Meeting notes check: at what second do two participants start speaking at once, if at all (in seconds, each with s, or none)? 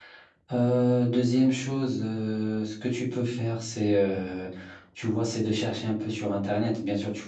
none